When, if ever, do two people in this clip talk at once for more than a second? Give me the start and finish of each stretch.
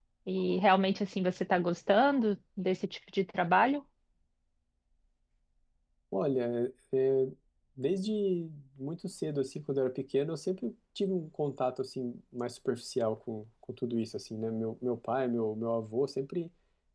none

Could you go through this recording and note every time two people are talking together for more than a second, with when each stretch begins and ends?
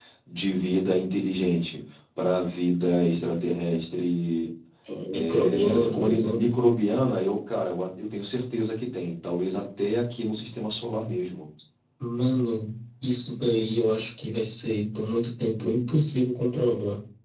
5.1-6.5

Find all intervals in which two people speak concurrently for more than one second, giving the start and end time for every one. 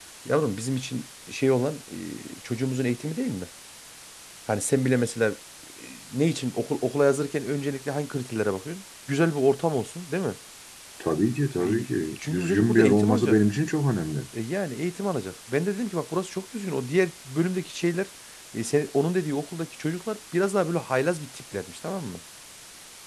11.6-13.4

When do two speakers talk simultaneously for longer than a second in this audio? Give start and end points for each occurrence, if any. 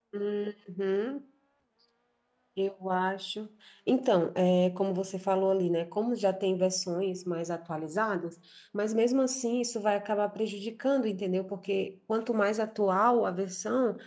none

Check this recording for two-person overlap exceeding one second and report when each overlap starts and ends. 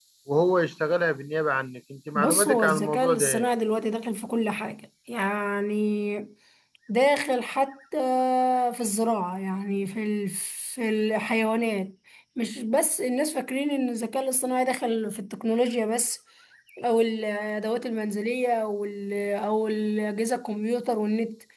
2.2-3.5

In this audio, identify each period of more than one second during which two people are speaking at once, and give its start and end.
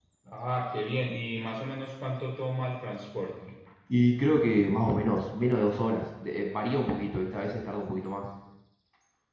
none

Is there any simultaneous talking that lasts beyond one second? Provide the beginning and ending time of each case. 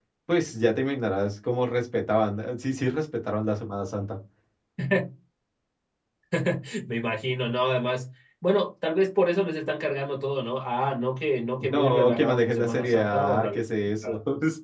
11.6-13.6

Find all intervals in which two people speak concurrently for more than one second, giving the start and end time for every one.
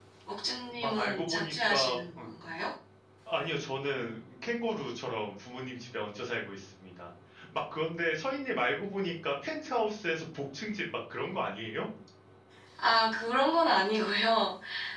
0.8-2.3

